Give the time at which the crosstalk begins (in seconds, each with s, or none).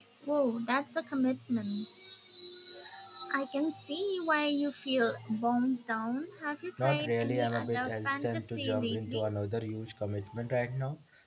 6.8 s